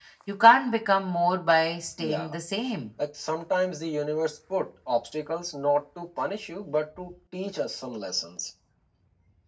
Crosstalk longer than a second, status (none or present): none